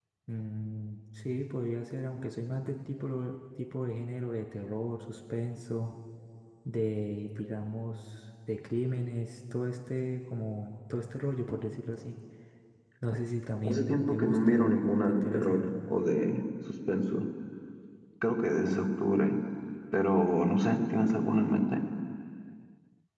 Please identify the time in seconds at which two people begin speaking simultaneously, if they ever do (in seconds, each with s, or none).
13.7 s